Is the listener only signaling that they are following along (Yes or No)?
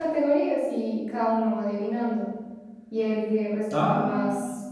Yes